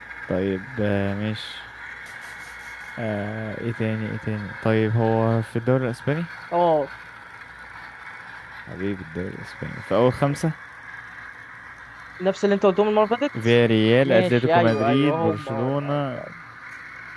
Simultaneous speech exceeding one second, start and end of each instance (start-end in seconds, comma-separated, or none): 14.0-16.2